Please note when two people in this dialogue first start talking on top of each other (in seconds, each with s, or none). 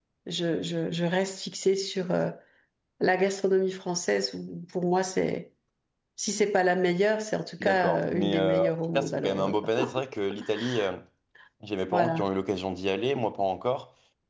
7.6 s